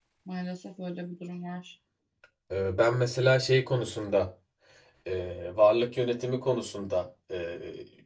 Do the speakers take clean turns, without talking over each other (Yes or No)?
Yes